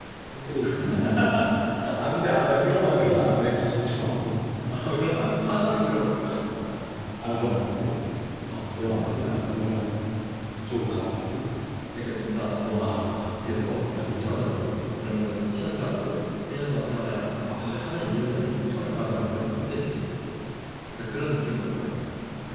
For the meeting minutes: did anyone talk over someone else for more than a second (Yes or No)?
Yes